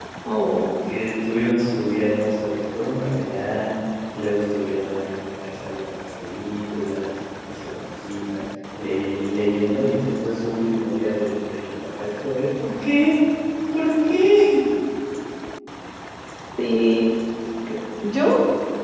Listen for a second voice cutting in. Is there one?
No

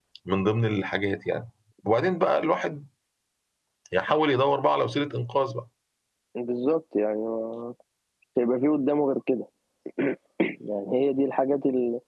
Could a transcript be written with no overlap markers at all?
Yes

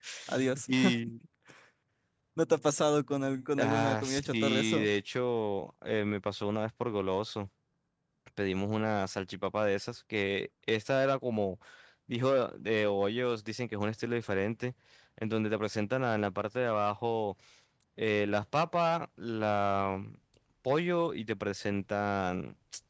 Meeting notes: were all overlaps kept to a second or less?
No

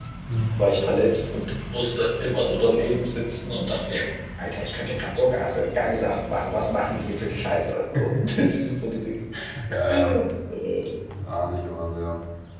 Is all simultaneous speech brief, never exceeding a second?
Yes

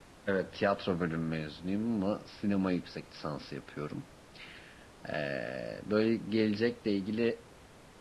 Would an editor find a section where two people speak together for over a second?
No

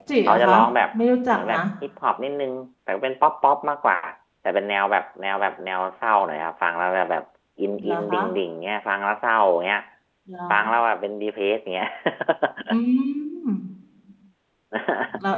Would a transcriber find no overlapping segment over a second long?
Yes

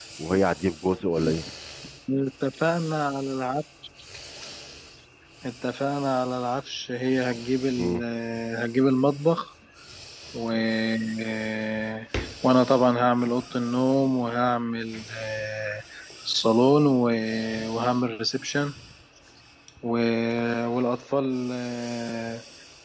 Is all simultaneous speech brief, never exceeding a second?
Yes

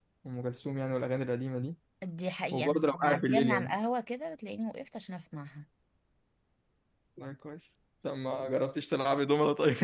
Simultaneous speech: Yes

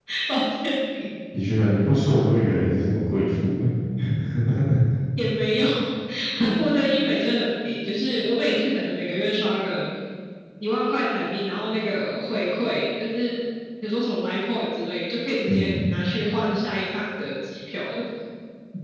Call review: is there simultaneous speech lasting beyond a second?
No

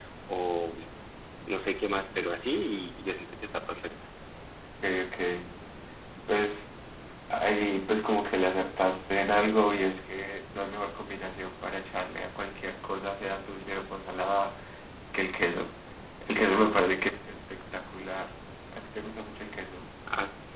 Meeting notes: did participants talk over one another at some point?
No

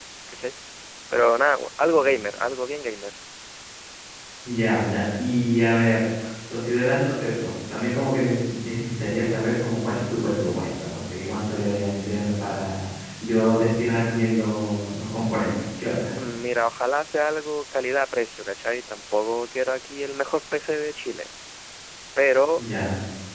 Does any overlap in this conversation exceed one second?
No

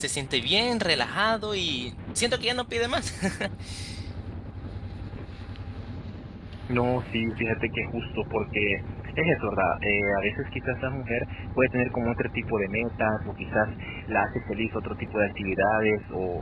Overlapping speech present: No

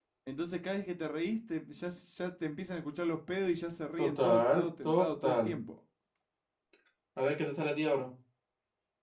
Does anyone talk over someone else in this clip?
Yes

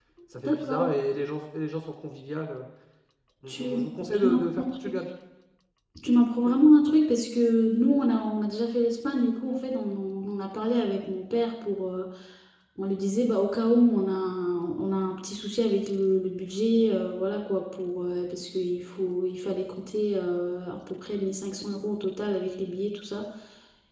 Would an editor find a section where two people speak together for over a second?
Yes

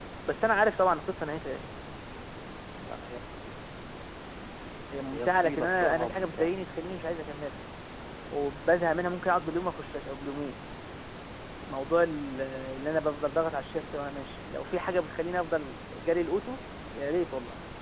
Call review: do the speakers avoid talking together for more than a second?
No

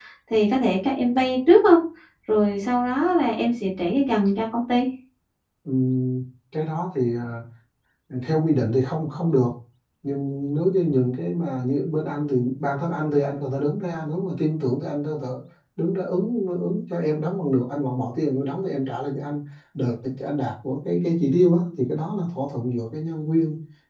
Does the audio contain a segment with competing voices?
No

